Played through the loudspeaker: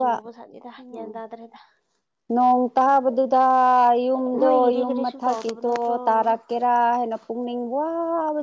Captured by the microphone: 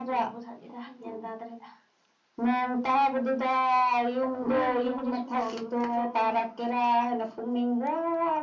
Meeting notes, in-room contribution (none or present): none